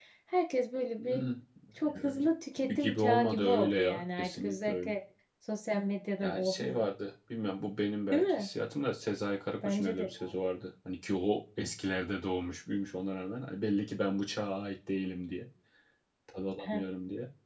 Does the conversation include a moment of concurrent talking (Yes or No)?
Yes